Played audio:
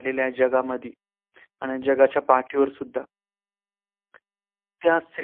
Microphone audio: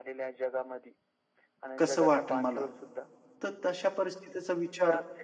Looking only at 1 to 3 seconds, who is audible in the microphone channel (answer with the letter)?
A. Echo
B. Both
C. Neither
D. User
B